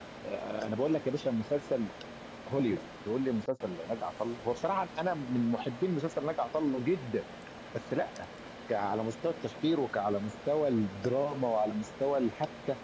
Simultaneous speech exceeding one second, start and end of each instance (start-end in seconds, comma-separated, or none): none